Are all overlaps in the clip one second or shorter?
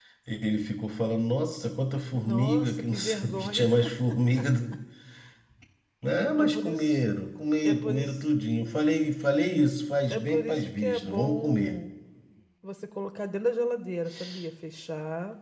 No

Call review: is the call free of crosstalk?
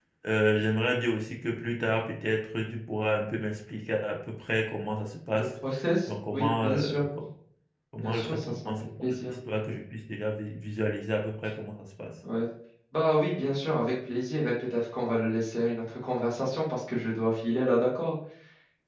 No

